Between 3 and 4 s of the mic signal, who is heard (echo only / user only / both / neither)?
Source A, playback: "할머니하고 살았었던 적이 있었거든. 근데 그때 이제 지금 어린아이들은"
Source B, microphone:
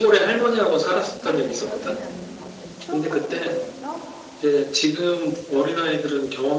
both